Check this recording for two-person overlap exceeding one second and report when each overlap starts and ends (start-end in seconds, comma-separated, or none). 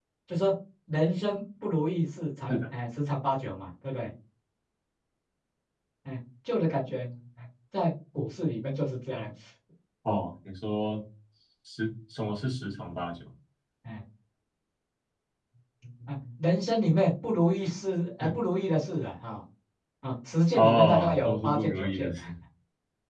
20.6-22.1